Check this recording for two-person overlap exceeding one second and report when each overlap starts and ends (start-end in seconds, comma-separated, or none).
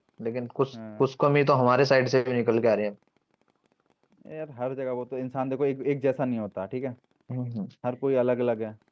none